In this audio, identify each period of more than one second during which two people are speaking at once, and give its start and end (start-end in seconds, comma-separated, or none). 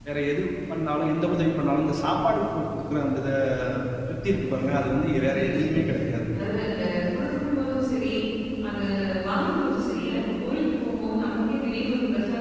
4.3-5.9